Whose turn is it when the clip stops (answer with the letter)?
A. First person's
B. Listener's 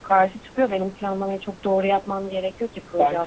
B